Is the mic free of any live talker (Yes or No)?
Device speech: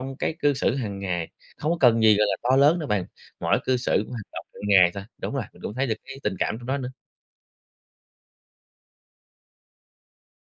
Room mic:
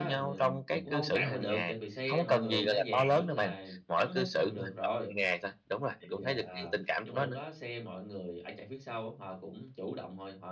No